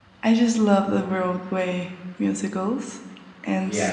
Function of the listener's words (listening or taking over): listening